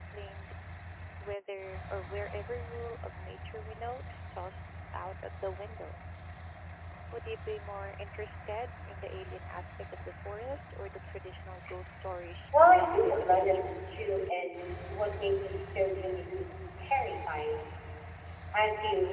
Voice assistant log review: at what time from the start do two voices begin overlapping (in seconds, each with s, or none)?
12.5 s